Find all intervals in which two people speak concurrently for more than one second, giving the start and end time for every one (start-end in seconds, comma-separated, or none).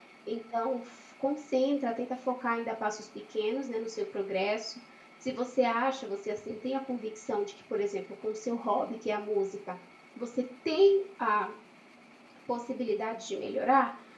none